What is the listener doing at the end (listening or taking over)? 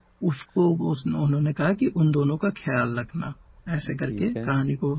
listening